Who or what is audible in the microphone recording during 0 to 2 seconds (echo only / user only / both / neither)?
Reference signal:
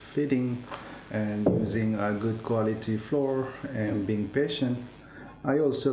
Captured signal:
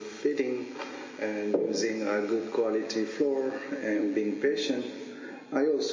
echo only